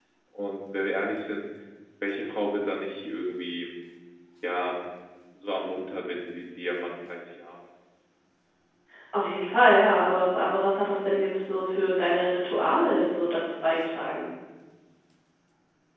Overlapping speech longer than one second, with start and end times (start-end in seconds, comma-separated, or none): none